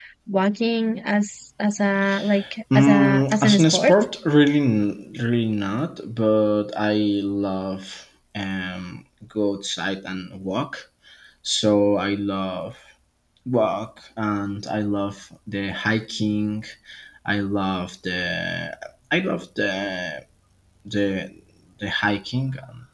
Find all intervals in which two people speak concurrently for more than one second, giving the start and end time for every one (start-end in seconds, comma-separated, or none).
2.8-4.0